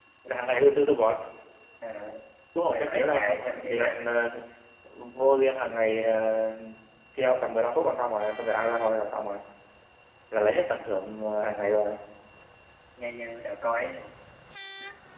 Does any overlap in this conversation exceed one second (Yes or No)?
Yes